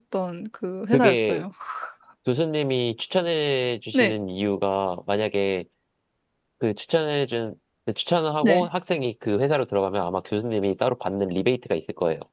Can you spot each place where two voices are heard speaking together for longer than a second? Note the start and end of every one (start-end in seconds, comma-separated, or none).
none